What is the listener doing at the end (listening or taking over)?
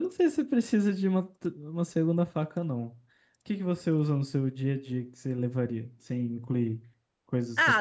taking over